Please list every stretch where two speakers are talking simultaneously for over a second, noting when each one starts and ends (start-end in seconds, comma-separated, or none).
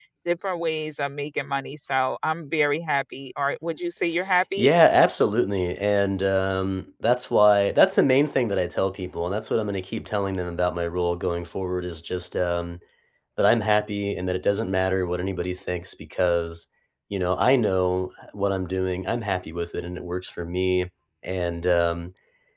none